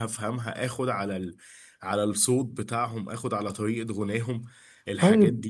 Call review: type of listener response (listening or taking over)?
taking over